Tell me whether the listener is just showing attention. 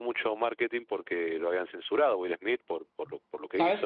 No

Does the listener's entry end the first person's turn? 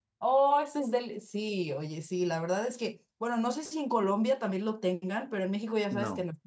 No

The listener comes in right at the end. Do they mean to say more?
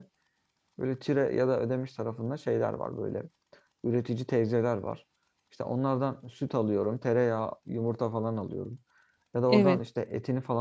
No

